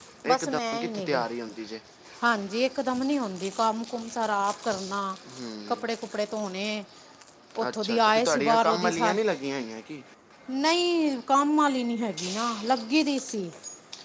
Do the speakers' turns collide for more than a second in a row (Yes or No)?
Yes